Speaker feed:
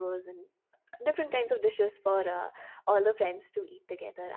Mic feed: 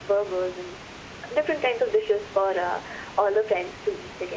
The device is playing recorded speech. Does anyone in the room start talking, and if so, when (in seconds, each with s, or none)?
none